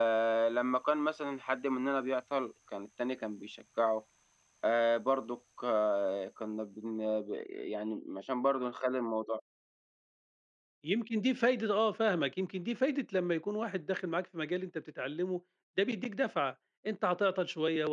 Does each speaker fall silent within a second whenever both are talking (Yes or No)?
Yes